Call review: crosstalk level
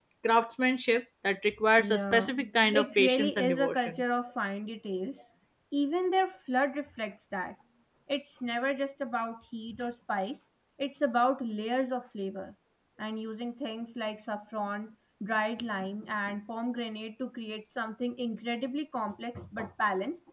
present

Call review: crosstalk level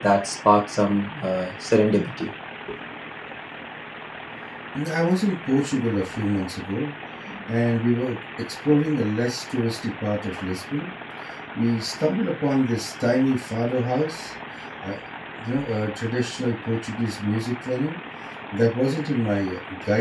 none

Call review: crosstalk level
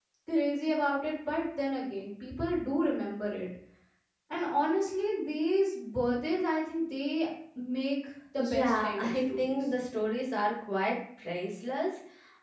present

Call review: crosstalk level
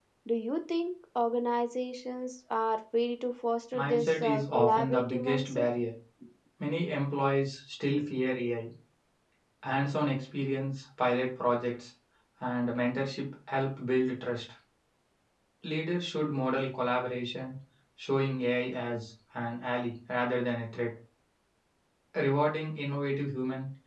present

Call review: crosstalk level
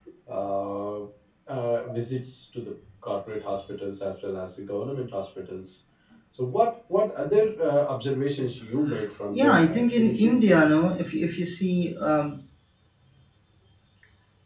present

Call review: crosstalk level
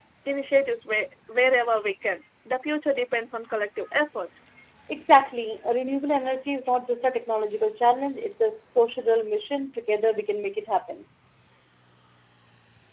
none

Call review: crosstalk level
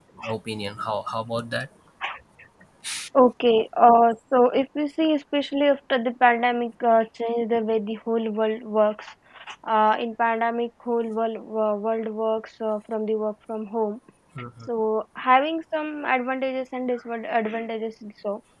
none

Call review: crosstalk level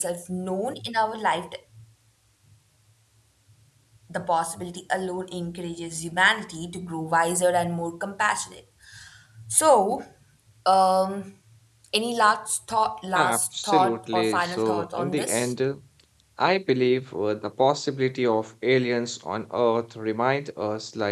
present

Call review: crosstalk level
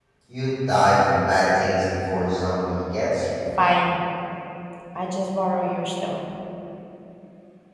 none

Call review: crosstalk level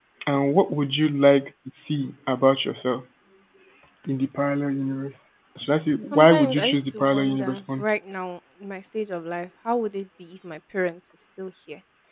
present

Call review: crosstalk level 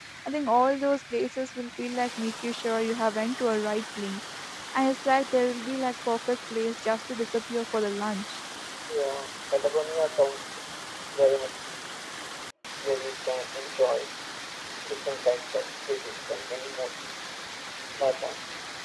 none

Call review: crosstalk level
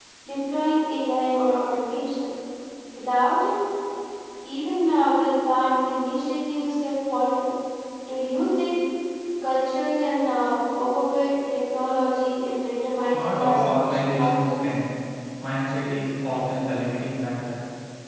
present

